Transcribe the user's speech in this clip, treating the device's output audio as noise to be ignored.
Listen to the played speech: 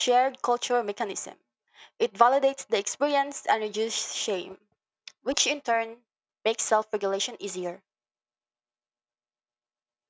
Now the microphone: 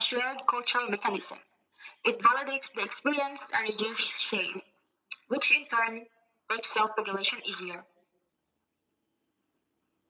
none

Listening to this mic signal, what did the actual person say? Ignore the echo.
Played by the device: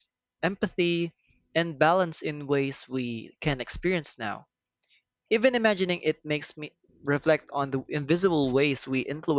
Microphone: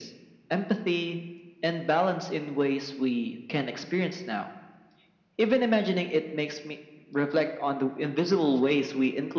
none

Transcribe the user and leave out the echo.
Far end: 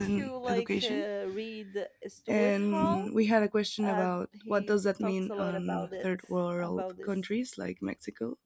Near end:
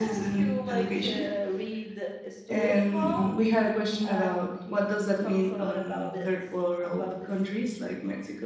none

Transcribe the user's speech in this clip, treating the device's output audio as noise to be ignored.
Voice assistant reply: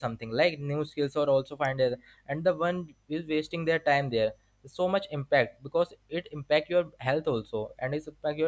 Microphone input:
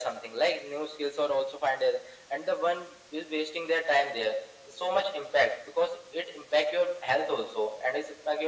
none

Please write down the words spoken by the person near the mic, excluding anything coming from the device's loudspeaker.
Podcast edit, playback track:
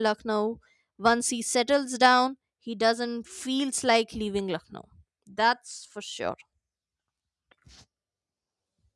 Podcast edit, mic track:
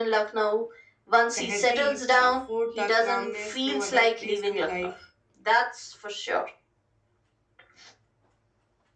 tehzeeb, the food, the calmness, no other place feel like.

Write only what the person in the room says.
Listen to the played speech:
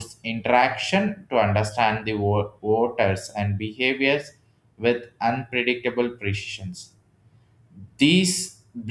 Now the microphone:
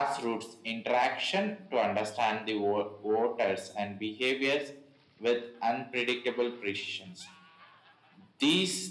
none

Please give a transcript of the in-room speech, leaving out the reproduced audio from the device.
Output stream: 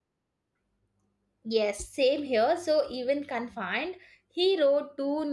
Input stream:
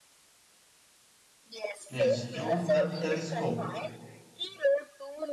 Yes, through that telescope,

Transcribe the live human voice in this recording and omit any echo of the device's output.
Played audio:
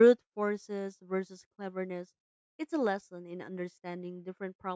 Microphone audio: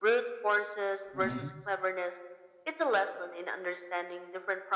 Mhm.

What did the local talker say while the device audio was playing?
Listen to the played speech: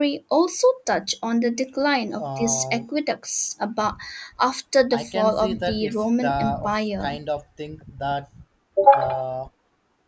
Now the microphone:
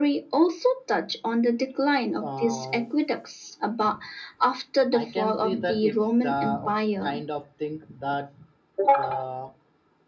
none

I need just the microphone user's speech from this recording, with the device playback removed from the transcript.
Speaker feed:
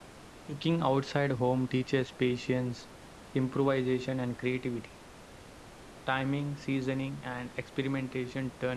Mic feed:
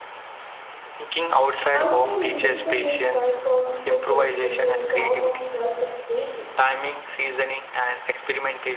Outside independence transforms cooking into a form of self expression.

